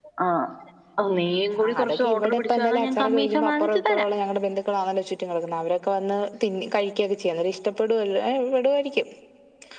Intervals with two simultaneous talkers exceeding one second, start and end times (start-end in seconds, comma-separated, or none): 1.7-4.0